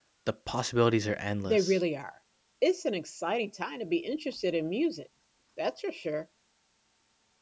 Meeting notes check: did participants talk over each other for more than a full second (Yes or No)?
No